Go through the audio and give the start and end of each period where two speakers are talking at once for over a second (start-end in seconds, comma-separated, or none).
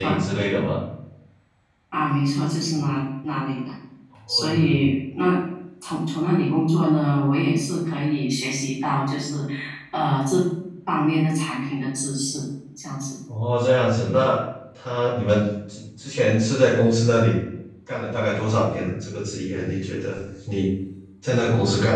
none